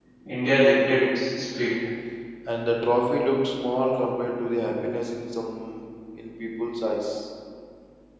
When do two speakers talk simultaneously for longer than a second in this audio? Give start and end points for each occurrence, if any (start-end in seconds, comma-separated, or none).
none